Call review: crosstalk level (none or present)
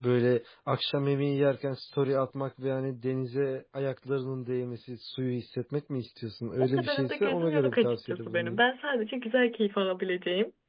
present